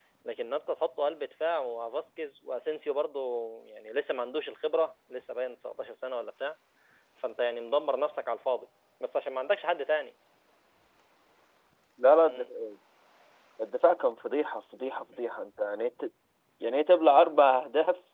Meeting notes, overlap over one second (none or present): none